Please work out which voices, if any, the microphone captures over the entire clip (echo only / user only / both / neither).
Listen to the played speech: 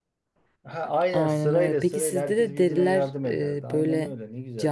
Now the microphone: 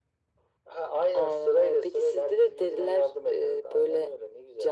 echo only